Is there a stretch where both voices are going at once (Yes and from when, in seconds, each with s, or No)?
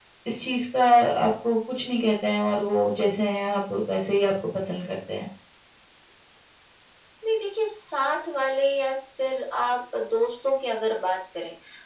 No